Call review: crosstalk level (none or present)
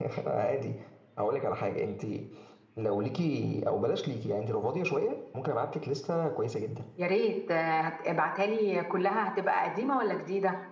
none